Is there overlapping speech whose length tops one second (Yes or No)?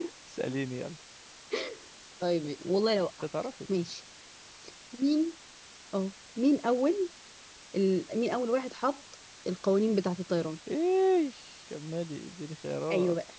No